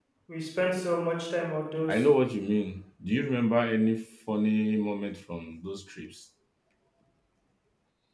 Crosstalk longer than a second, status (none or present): none